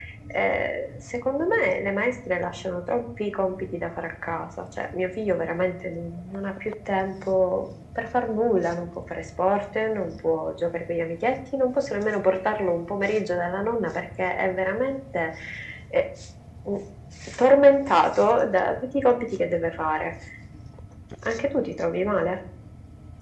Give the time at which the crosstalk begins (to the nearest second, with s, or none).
none